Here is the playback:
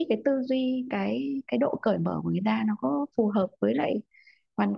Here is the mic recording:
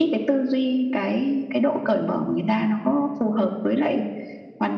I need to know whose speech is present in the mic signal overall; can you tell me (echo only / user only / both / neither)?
echo only